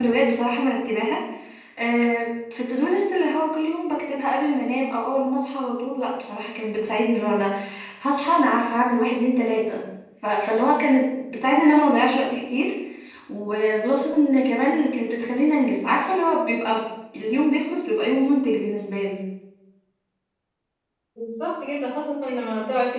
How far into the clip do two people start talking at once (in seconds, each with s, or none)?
none